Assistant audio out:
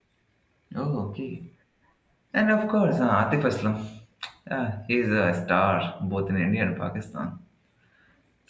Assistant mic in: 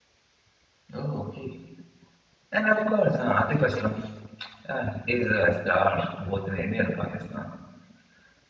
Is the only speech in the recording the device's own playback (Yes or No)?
Yes